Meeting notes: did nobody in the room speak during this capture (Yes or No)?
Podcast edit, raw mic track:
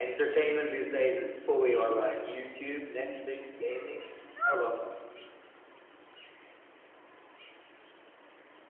Yes